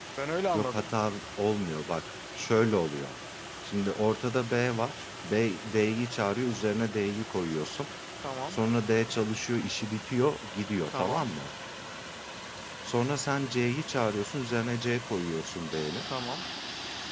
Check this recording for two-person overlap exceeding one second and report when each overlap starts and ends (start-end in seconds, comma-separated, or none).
none